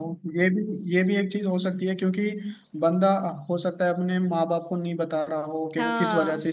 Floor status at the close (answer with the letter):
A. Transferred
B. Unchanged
B